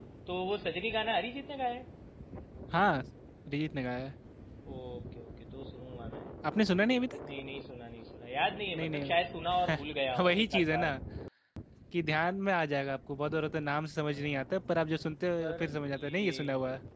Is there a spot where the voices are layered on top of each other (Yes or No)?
Yes